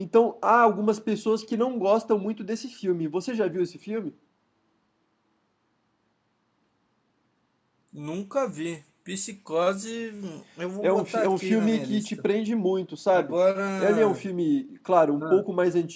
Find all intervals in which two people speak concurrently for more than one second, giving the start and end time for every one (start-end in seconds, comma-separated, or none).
10.8-12.1